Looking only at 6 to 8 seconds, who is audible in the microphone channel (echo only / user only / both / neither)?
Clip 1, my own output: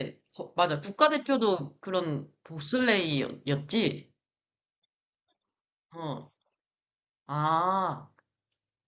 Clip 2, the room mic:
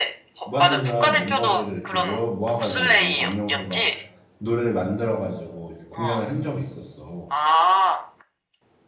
both